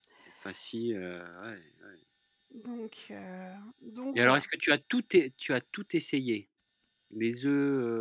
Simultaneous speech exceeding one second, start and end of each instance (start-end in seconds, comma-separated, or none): none